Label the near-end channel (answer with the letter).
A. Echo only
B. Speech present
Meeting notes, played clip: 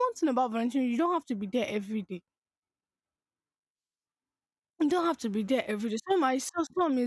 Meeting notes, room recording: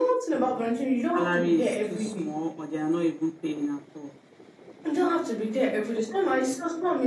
B